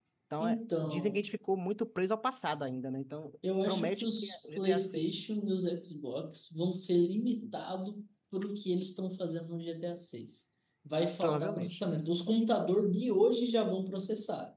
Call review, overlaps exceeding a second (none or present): present